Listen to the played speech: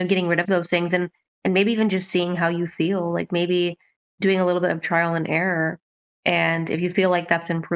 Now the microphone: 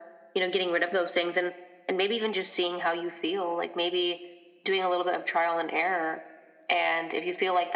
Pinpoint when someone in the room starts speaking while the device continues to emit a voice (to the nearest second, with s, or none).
none